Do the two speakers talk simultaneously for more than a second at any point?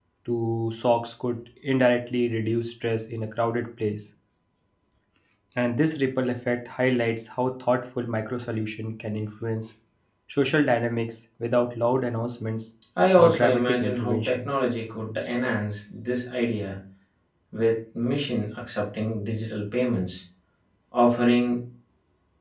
Yes, from 13.2 s

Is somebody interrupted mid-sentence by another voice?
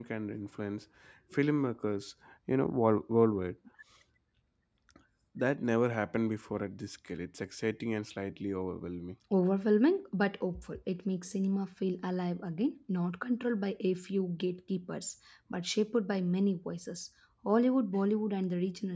No

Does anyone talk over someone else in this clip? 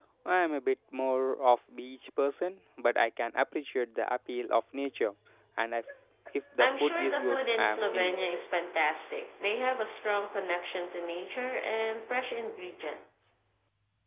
Yes, from 6.6 s

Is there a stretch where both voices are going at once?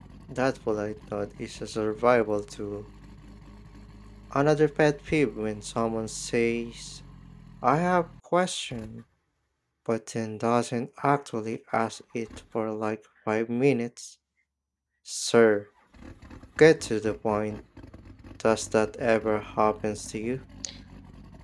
No

